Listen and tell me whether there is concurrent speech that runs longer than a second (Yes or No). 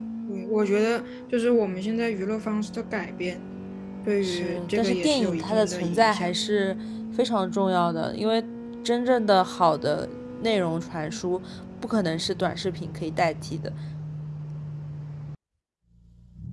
Yes